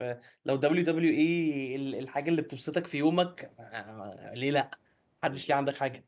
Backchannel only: No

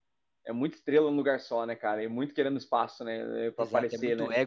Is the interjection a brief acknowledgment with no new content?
No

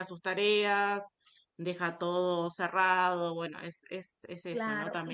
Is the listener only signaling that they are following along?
No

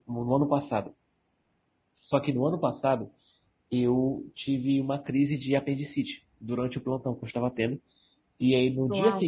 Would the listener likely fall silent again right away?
Yes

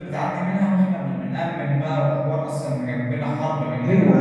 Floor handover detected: Yes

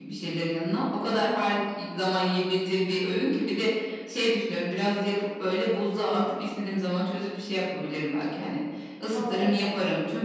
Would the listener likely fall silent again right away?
Yes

